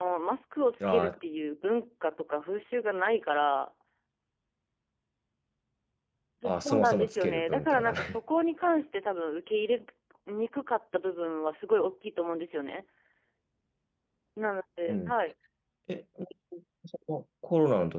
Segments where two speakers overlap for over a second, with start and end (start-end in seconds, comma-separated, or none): 6.6-8.2